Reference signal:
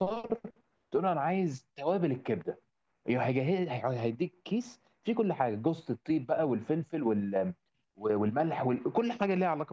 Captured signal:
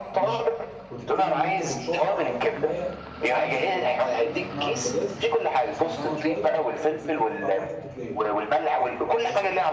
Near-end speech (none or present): present